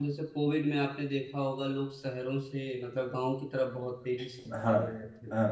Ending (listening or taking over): taking over